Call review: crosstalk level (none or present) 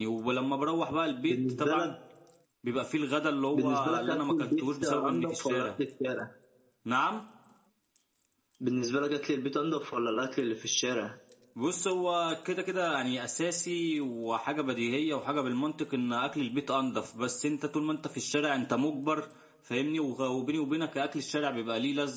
present